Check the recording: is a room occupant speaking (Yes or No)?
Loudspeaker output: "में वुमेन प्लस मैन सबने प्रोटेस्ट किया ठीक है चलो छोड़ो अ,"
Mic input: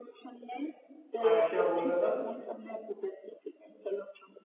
Yes